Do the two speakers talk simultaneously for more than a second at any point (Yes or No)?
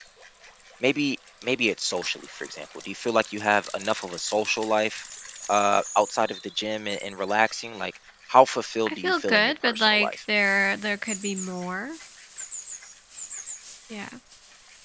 Yes